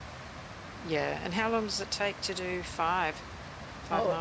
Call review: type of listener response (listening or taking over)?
taking over